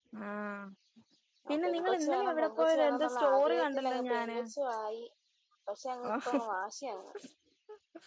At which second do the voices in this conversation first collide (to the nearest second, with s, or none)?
1 s